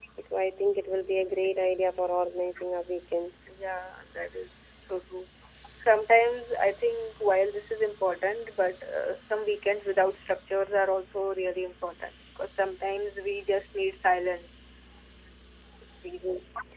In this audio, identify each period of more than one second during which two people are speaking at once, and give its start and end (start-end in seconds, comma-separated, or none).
none